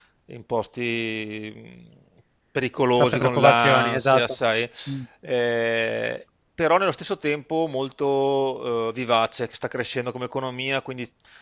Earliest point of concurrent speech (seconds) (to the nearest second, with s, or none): 3 s